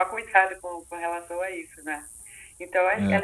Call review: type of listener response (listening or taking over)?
listening